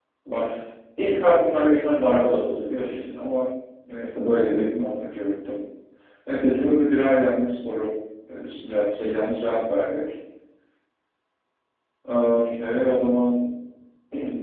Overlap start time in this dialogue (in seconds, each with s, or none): 1.5 s